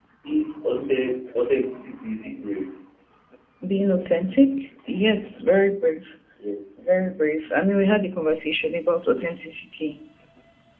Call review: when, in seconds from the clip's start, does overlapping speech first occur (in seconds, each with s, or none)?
none